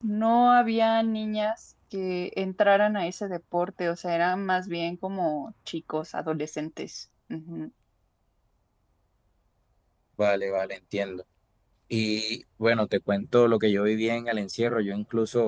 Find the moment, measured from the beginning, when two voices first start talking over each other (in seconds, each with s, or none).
none